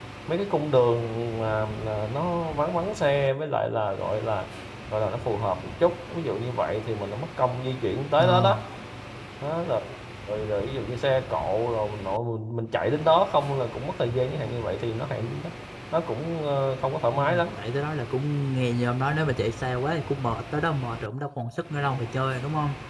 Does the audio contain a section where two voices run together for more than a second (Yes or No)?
No